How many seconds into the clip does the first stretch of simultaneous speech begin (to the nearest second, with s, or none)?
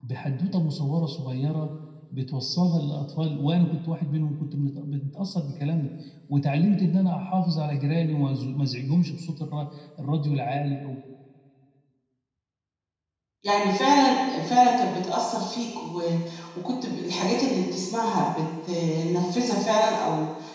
none